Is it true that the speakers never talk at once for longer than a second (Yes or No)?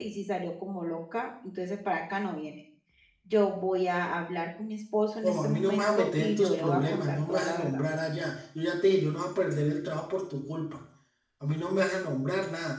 No